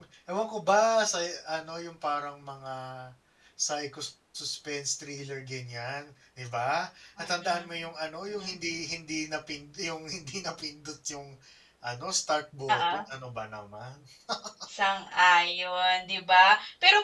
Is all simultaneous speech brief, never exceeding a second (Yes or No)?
Yes